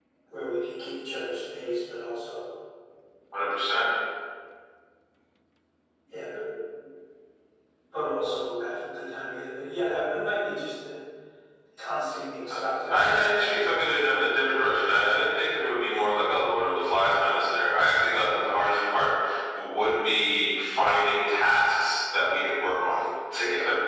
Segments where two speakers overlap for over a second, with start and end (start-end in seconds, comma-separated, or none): 12.5-13.9